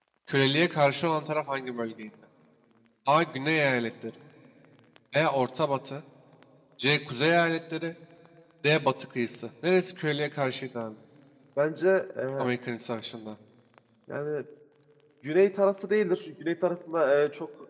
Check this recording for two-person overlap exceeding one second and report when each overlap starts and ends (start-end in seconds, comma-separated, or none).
none